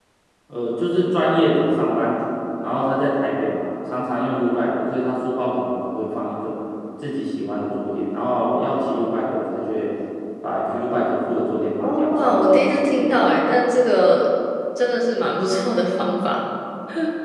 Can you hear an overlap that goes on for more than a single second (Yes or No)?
Yes